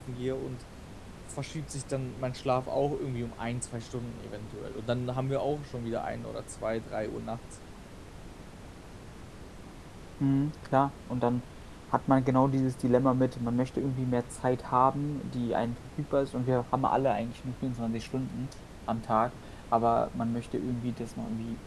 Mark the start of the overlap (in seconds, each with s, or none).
none